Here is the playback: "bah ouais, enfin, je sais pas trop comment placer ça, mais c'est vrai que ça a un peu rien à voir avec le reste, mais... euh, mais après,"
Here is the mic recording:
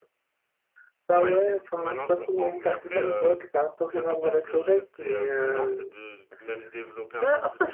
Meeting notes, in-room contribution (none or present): present